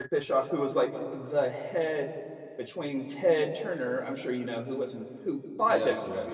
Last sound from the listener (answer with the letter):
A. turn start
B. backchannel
B